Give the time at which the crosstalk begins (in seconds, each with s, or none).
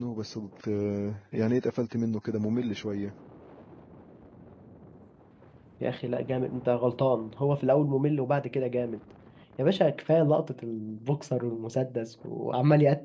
none